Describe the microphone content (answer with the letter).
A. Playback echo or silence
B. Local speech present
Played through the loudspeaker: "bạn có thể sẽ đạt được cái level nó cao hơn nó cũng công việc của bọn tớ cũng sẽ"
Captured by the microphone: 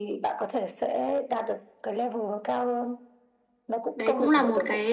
B